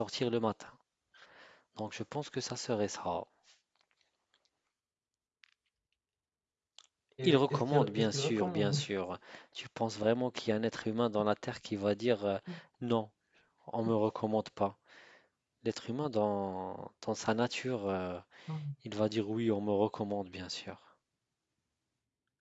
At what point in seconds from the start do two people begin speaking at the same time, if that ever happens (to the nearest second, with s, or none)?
7 s